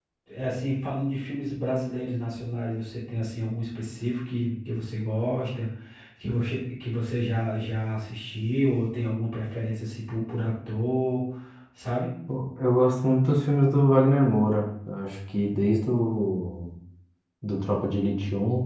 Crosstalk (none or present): none